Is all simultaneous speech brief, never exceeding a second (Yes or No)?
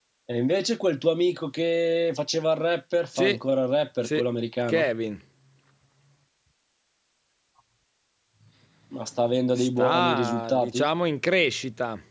No